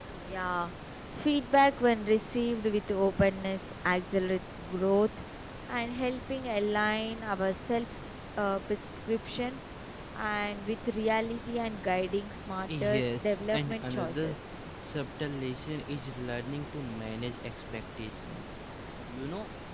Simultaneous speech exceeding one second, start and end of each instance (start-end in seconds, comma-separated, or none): 12.7-14.4